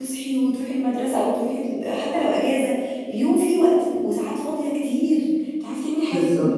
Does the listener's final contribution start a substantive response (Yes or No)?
No